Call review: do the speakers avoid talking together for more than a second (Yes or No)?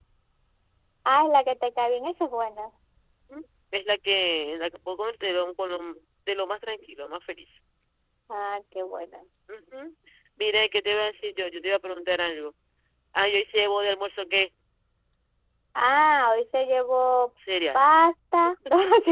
Yes